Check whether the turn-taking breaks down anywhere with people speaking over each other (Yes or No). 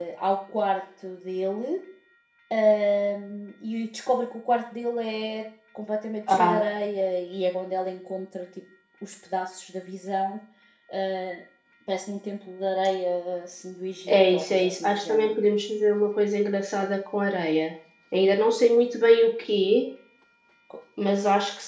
Yes